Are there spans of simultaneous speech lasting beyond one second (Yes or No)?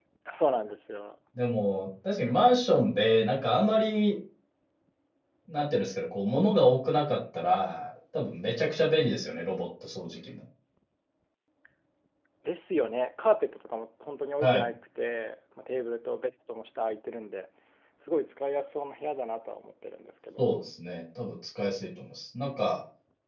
No